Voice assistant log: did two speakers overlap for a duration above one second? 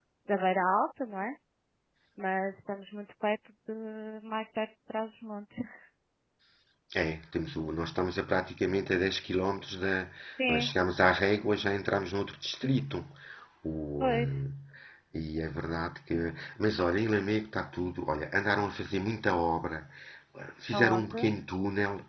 No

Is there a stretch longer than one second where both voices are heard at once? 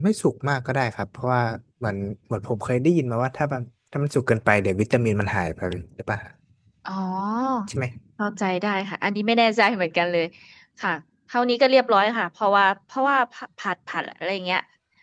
No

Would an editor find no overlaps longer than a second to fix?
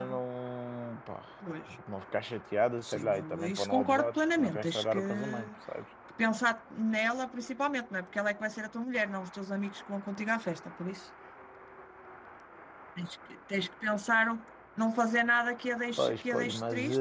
No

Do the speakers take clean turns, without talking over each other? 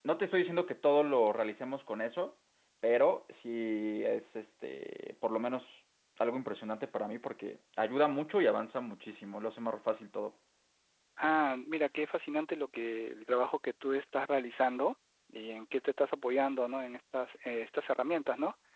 Yes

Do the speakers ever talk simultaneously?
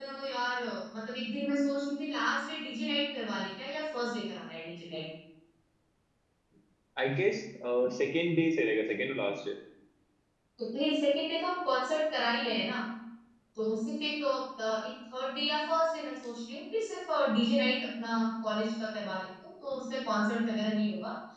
No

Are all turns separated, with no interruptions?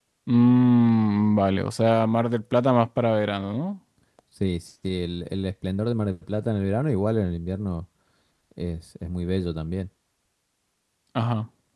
Yes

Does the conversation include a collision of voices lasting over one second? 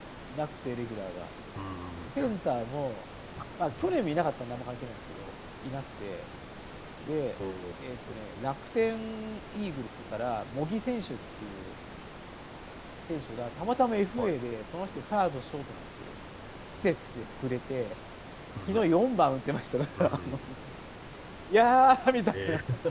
No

